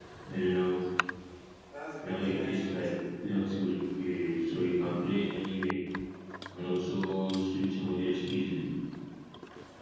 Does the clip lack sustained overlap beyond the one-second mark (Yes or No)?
No